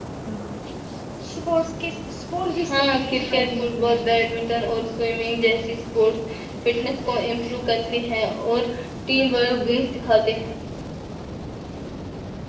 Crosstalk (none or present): present